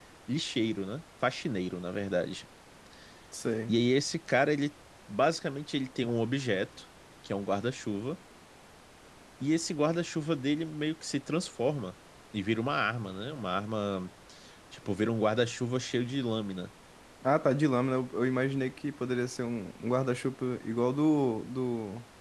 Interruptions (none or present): none